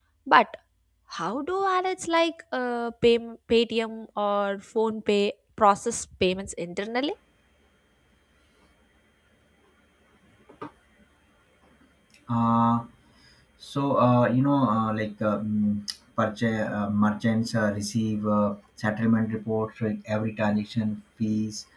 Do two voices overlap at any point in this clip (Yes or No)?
No